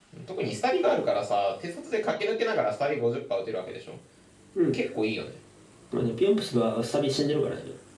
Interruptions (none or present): none